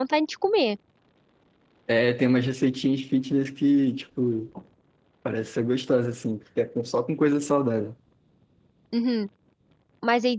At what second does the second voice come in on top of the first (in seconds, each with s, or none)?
none